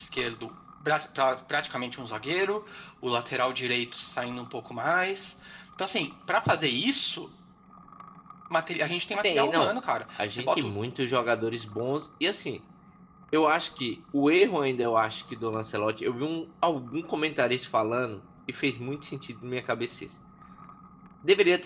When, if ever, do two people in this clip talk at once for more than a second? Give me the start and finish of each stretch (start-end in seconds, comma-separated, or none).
none